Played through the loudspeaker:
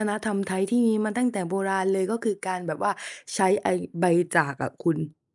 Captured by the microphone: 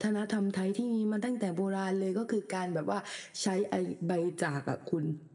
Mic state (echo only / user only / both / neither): echo only